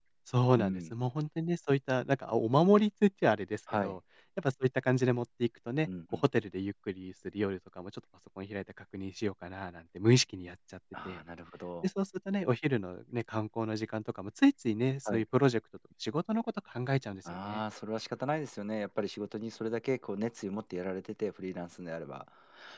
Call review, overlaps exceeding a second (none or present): none